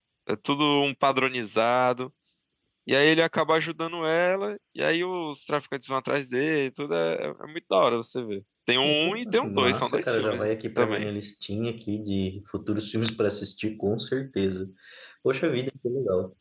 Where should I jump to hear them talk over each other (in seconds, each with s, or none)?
8.8 s